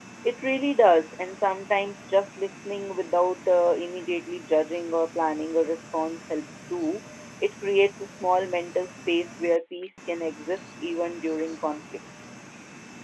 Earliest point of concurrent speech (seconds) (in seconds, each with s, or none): none